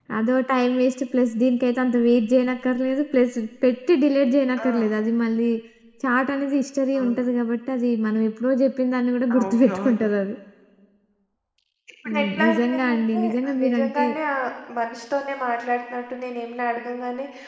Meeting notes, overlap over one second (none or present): present